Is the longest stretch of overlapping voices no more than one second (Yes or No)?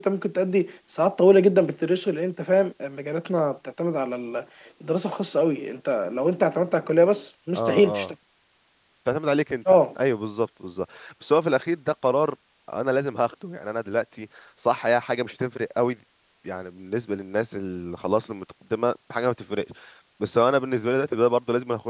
Yes